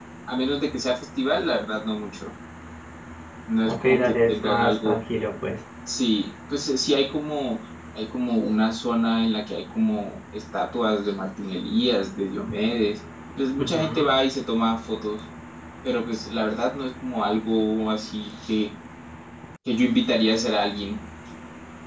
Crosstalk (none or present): present